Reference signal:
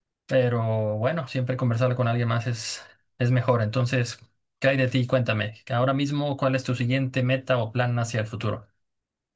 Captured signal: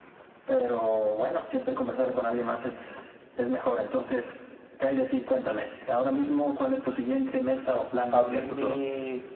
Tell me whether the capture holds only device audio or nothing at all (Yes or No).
No